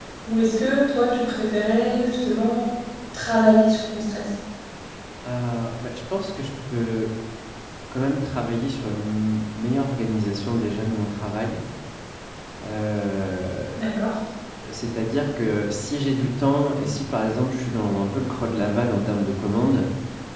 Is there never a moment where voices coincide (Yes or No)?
Yes